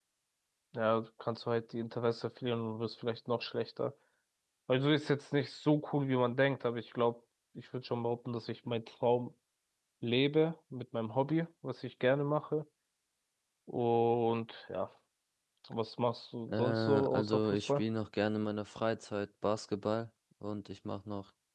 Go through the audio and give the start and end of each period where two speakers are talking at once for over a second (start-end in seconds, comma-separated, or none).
16.5-17.8